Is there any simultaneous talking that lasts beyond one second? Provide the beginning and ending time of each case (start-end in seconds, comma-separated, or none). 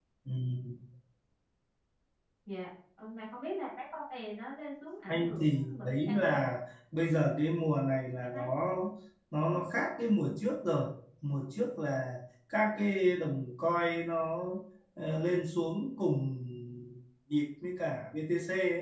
5.1-6.4